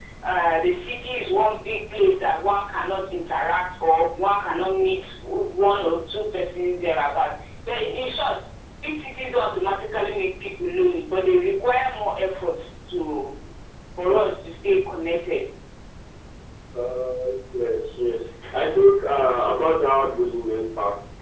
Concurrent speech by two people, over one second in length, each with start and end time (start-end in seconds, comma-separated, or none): none